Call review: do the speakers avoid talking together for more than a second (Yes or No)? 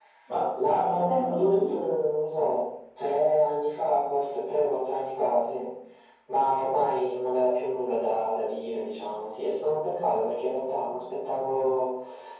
No